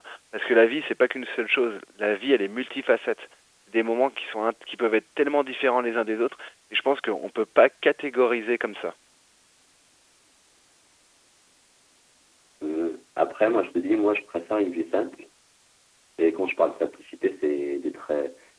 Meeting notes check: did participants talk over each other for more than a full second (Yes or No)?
No